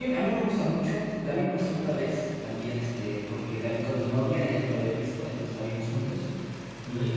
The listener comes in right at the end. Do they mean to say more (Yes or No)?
No